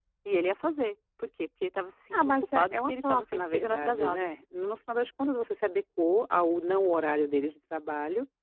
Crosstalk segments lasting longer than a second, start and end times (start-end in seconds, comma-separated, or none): 2.1-4.3